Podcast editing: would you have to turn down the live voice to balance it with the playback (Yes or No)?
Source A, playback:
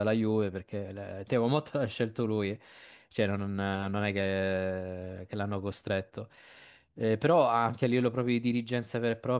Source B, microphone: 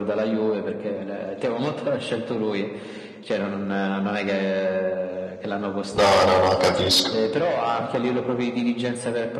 Yes